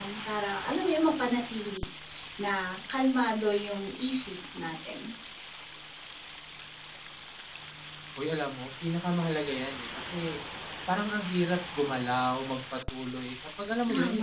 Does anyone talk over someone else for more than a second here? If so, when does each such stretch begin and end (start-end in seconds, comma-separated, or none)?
none